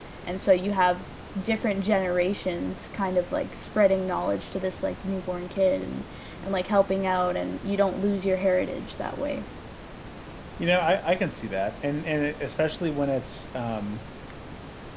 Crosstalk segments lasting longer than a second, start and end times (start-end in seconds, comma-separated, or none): none